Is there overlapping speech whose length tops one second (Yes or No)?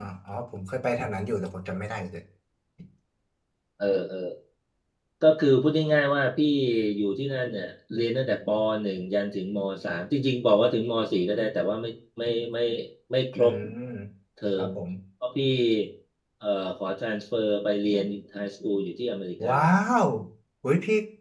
No